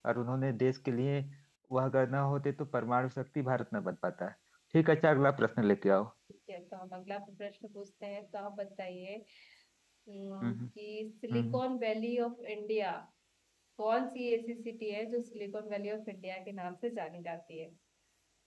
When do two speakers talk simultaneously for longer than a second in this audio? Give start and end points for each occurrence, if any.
none

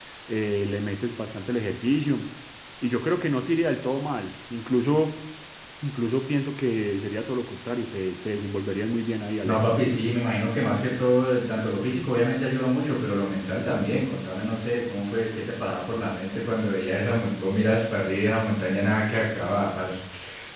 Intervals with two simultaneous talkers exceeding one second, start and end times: none

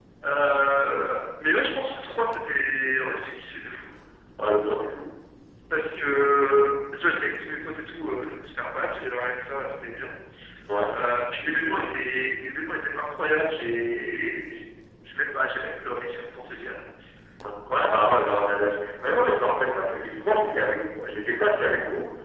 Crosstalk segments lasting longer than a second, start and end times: none

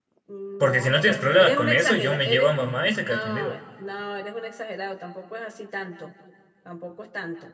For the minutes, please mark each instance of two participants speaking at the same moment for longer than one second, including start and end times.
0.6-2.5

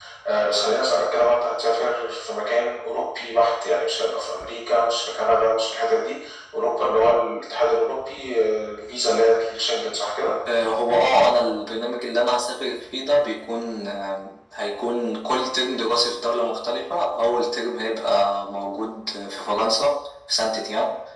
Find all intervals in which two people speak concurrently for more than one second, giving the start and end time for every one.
none

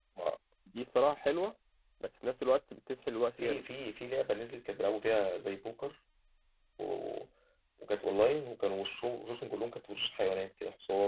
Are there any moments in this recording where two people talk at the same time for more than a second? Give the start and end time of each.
none

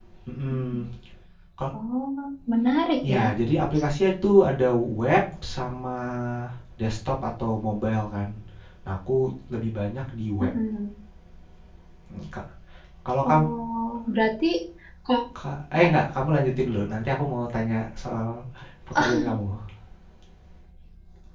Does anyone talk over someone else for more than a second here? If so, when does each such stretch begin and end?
none

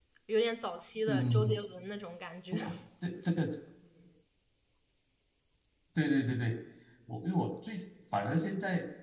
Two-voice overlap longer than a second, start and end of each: none

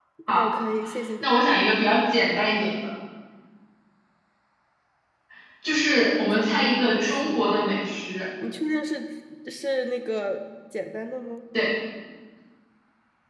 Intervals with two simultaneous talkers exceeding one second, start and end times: 6.3-7.5

